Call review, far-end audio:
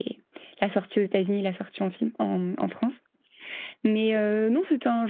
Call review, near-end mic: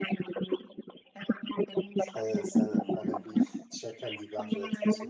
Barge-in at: 2.1 s

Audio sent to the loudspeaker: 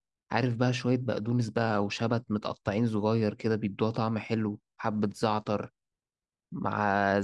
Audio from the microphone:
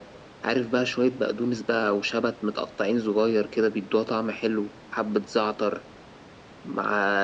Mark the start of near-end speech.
none

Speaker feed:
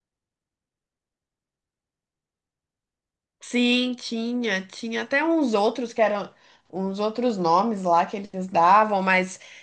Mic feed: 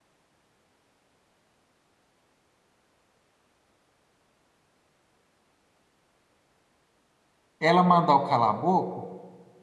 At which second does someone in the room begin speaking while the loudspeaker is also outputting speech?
7.6 s

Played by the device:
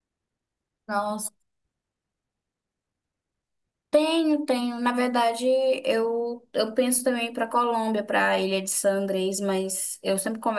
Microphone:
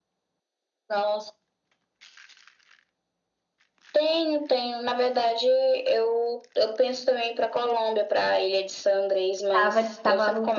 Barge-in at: 9.5 s

